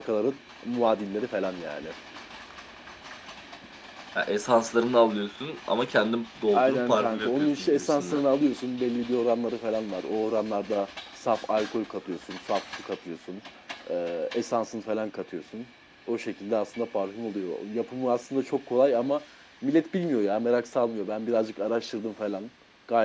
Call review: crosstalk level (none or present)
present